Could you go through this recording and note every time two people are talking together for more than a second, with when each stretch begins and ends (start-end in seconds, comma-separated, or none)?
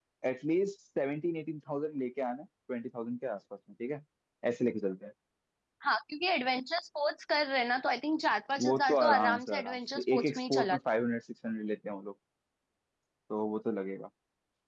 8.6-10.8